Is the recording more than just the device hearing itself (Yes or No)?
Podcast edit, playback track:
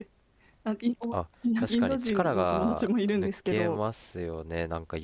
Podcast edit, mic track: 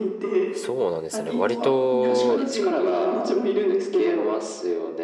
Yes